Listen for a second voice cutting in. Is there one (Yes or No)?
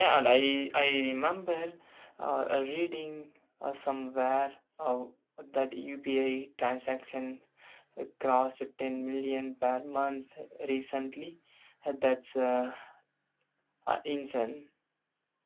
No